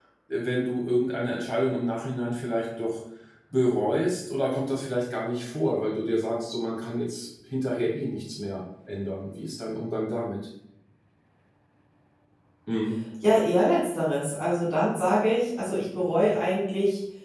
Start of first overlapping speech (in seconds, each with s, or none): none